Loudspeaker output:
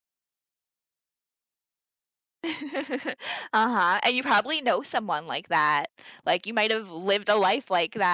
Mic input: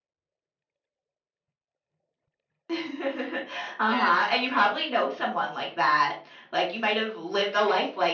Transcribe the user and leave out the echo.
Yeah.

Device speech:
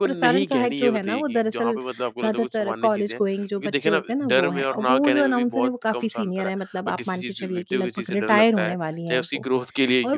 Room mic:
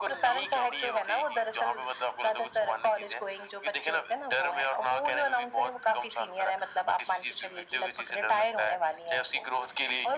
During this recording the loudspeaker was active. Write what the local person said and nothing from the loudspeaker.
none

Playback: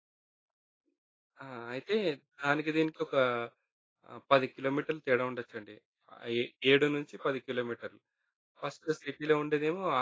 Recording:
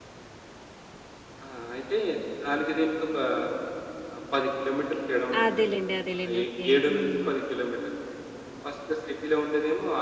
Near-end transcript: అదేలెండి. అదేలెండి. ఓకే. హ్మ్.

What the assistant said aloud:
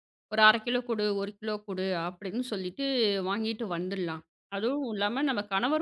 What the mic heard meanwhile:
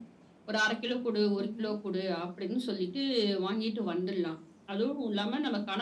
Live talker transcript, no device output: ம்ஹ்ம்.

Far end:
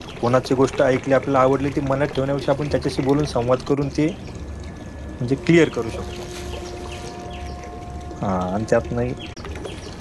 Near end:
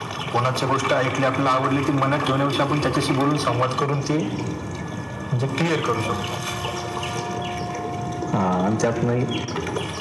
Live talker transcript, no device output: none

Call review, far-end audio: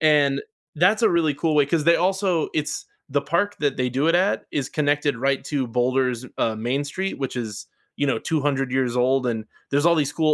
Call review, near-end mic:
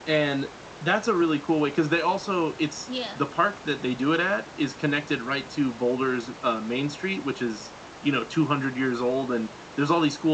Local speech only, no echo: Yeah.

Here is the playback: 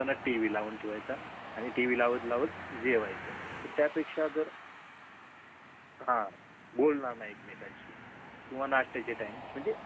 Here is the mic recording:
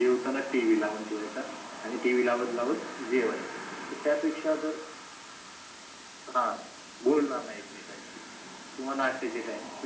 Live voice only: none

